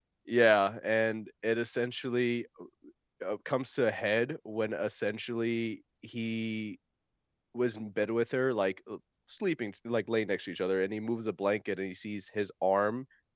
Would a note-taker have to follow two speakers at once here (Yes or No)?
No